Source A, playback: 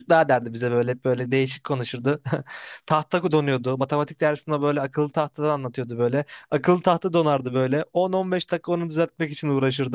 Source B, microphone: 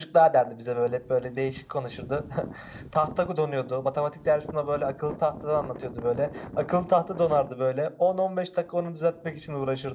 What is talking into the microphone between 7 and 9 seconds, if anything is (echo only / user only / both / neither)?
echo only